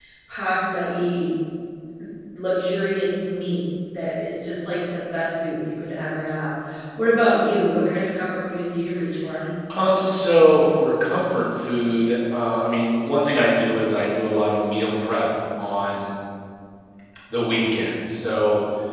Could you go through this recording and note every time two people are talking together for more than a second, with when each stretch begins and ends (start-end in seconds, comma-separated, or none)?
none